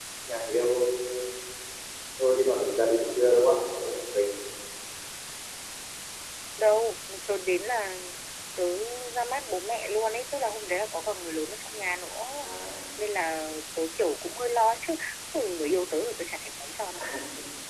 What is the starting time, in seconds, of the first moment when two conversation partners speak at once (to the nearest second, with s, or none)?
none